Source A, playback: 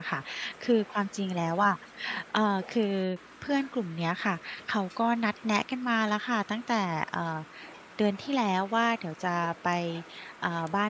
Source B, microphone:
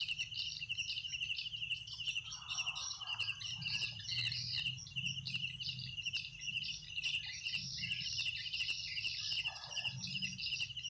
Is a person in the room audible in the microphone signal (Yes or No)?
No